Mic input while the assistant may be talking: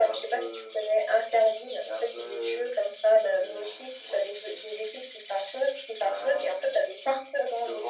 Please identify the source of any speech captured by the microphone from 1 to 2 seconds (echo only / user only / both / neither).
echo only